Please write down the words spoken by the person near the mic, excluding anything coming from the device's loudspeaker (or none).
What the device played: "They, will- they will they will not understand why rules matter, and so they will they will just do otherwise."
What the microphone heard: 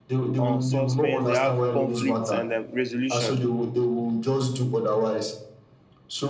um suspense they have conflicts and um resolution